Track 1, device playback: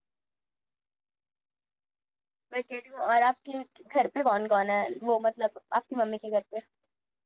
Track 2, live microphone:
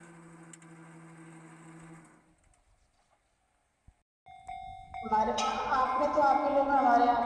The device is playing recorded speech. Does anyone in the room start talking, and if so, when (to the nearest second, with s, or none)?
5 s